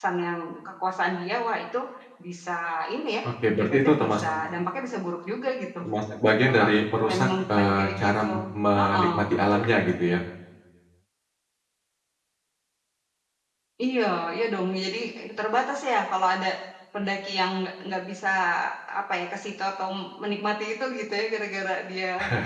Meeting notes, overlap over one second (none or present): present